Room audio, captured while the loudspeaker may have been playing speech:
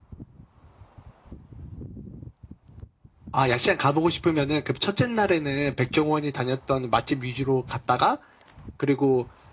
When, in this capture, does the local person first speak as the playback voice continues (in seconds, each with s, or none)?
none